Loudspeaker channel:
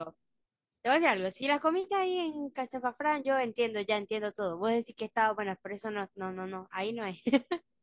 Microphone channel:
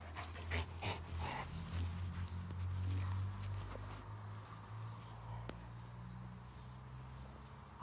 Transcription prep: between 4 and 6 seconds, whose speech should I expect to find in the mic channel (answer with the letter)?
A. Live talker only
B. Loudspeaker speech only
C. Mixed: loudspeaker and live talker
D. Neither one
D